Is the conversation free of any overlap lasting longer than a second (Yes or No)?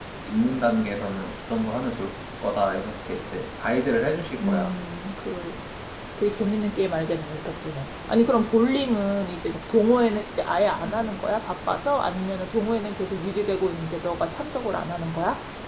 Yes